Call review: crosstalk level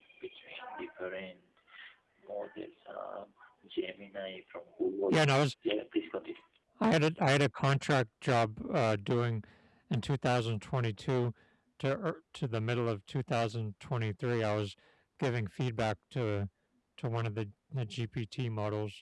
none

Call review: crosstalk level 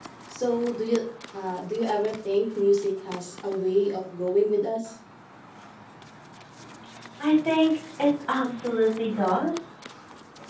none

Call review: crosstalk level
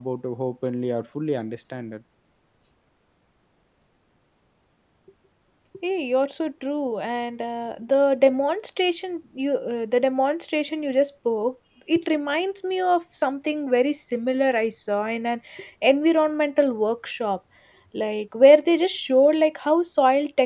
none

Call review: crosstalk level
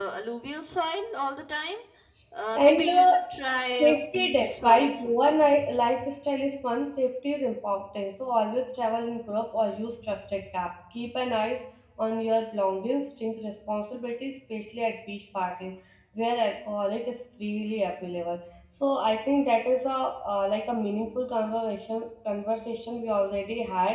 present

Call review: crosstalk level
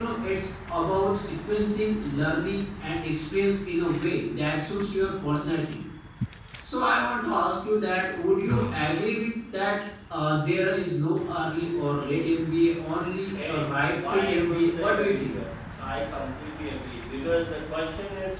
present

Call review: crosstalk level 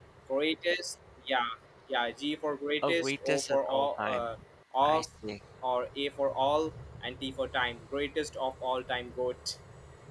present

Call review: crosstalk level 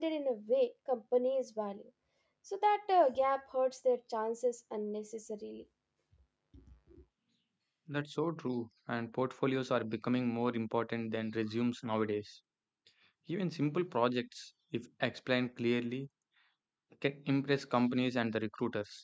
none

